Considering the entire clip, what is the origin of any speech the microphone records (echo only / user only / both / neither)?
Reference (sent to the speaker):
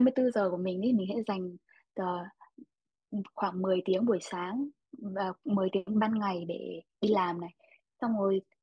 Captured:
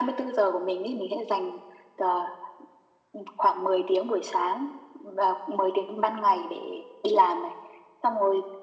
echo only